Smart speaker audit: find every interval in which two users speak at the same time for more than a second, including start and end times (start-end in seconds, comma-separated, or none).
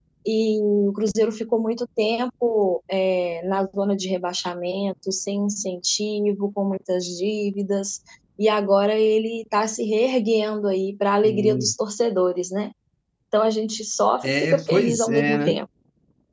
14.2-15.6